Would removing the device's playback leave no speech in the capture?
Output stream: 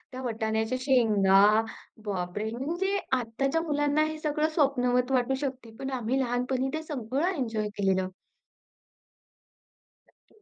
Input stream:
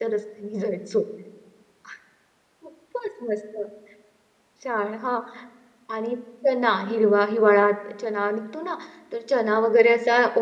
No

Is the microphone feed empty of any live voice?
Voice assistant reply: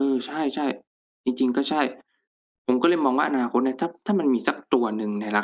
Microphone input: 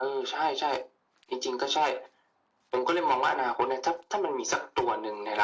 Yes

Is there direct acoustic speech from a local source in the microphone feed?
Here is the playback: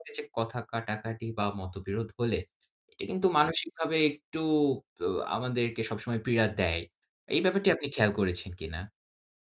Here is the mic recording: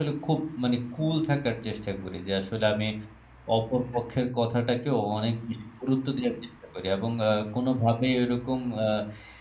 Yes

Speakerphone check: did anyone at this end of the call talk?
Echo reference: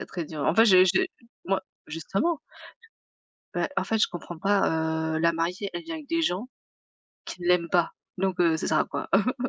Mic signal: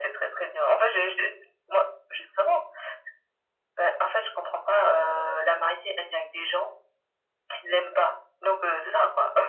No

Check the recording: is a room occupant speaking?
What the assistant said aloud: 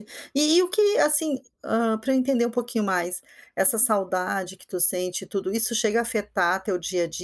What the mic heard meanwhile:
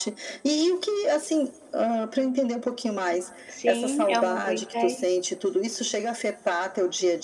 Yes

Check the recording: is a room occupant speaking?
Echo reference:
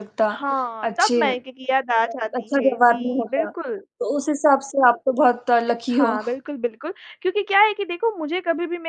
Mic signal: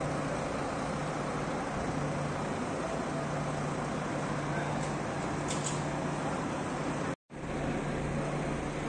No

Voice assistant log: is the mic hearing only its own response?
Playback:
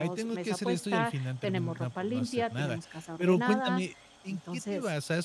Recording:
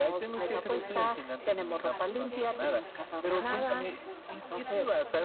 No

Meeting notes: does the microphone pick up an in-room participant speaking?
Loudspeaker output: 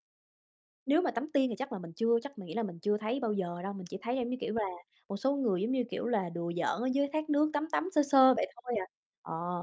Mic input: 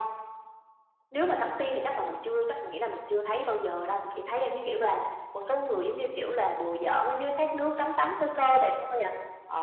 No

